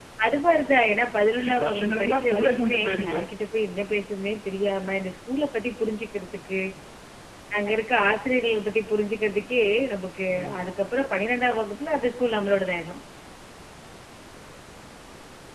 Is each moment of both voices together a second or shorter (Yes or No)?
No